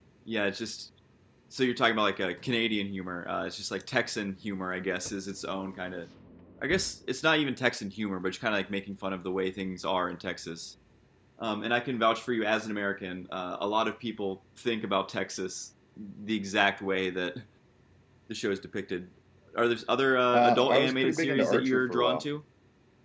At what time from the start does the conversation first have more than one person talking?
20.3 s

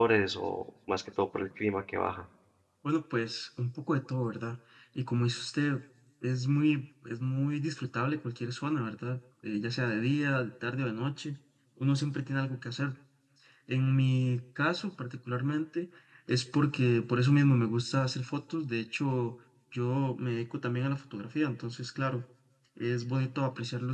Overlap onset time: none

